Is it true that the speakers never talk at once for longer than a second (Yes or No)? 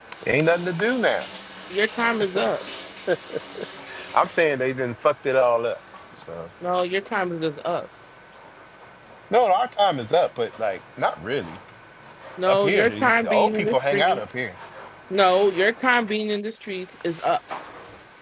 No